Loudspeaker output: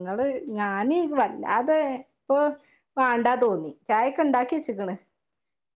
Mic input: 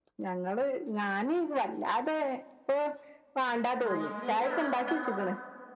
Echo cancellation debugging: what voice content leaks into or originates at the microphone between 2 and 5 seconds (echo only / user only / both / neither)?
both